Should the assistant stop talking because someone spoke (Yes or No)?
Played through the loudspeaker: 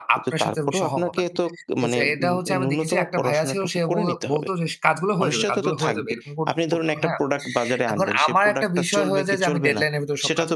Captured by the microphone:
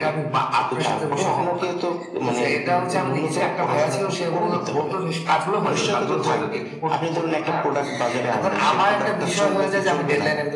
No